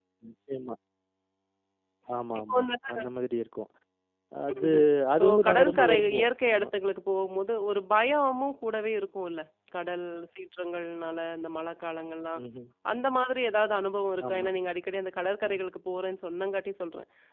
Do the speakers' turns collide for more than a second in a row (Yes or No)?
Yes